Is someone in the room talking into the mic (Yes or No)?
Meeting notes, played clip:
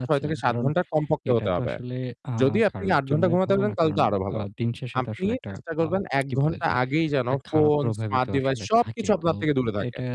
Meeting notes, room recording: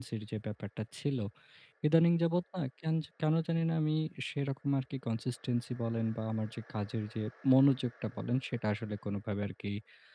Yes